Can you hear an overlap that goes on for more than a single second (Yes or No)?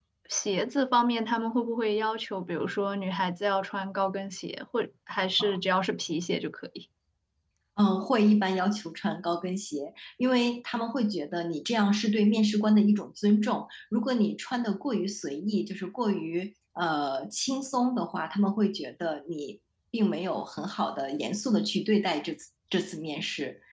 No